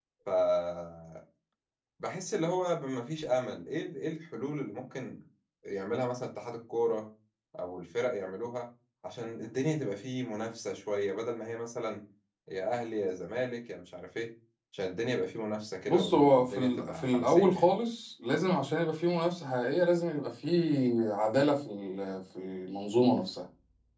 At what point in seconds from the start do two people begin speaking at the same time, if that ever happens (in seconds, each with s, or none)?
15.9 s